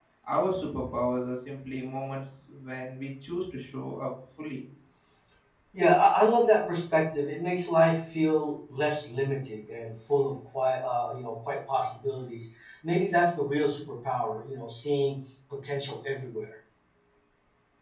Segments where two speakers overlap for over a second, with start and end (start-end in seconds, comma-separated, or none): none